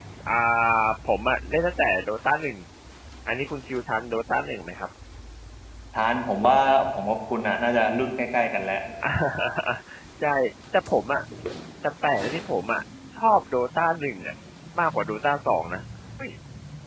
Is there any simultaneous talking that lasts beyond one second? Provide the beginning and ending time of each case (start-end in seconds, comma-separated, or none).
none